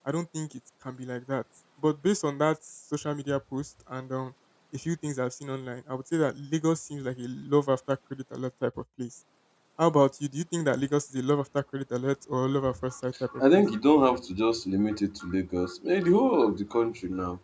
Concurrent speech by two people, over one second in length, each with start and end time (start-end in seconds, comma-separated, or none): none